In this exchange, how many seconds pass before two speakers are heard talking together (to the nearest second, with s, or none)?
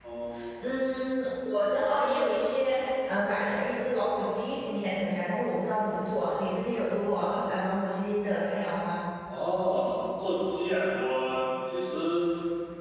none